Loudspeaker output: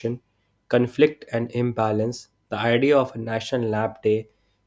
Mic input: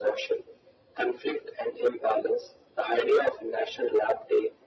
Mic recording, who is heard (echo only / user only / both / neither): echo only